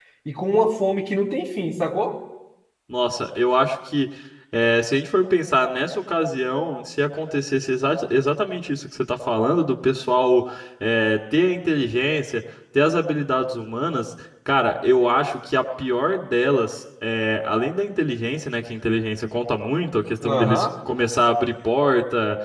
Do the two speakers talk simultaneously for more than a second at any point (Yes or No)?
No